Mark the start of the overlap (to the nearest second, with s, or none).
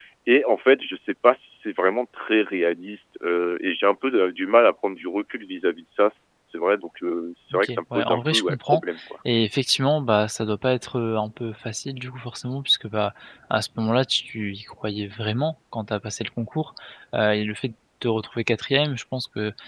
8 s